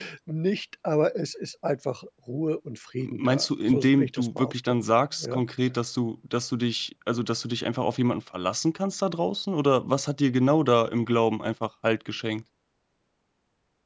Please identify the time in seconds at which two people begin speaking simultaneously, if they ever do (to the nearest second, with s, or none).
3 s